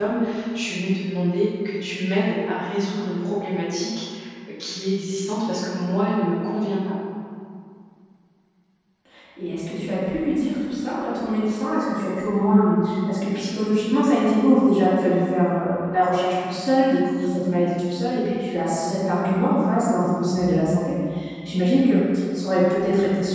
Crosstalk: none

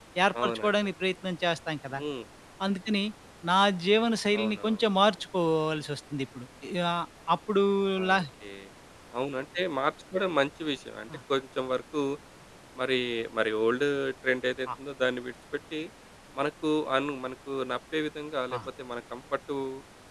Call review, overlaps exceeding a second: none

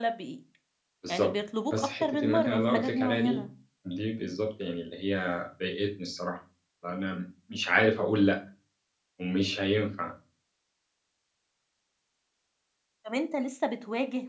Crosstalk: present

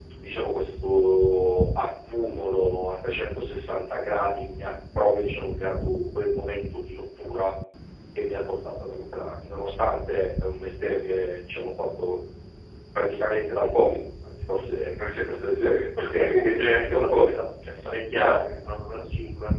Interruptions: present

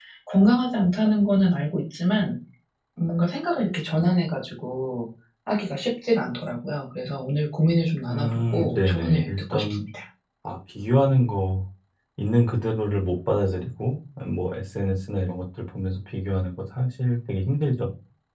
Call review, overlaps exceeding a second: present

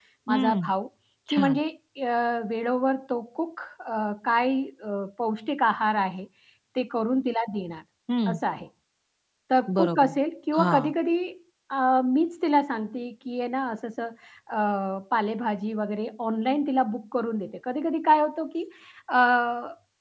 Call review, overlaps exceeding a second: none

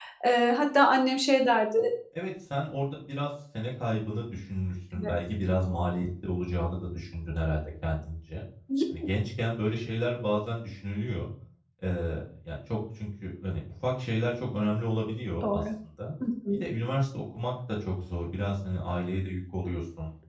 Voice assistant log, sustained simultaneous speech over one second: none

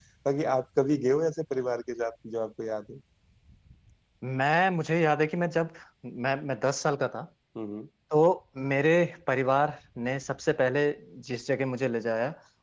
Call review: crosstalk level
none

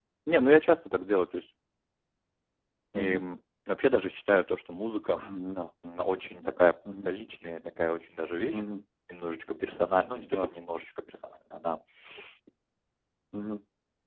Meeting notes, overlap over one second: none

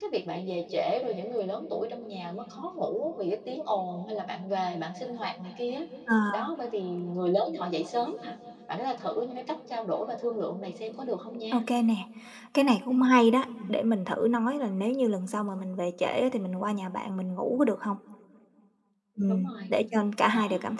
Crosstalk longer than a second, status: none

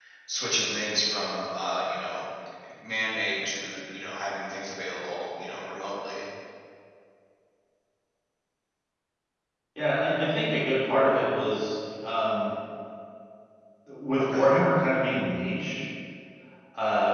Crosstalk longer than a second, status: none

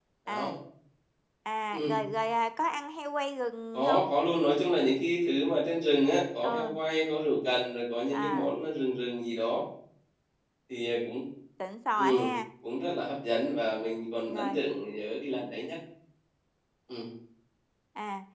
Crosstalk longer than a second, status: none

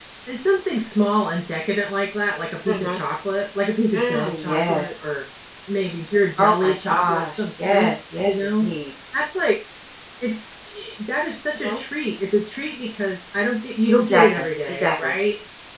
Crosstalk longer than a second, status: present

